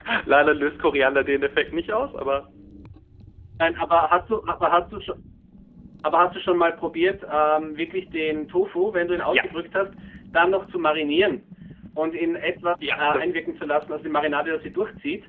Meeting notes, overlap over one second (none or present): none